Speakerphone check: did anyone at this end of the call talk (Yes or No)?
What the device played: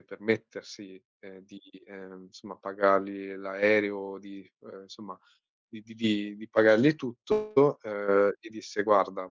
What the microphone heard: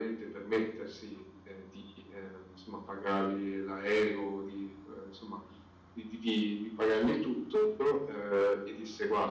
No